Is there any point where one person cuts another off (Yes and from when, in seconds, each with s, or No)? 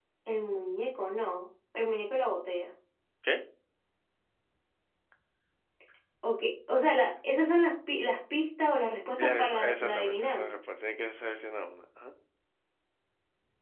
Yes, from 9.2 s